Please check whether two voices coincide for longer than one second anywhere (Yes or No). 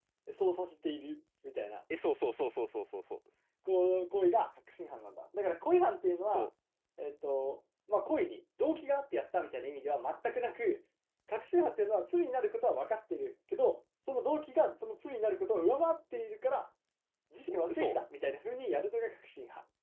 No